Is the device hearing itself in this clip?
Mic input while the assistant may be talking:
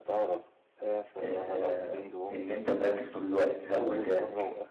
Yes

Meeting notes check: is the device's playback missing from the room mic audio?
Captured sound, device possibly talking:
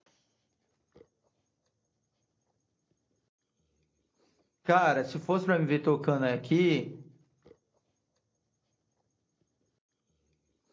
Yes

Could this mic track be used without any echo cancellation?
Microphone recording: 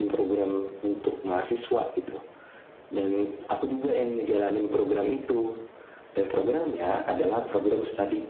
No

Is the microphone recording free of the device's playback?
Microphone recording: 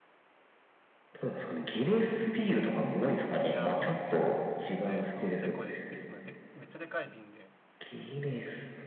No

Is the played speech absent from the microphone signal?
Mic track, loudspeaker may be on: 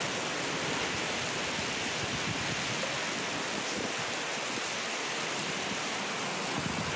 Yes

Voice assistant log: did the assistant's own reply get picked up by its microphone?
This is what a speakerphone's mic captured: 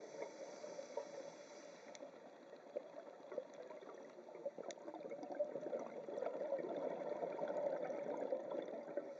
No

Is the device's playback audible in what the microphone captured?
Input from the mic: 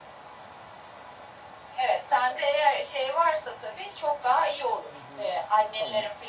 Yes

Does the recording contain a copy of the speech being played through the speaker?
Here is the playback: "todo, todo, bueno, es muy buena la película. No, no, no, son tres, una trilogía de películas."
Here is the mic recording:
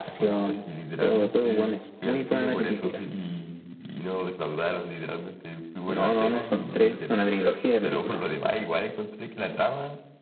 Yes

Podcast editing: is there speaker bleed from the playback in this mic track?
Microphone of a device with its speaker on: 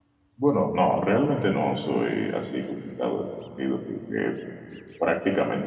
No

